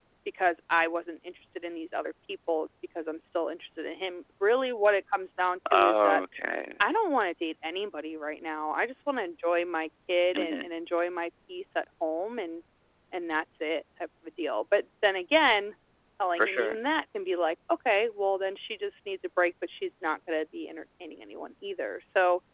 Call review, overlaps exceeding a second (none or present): none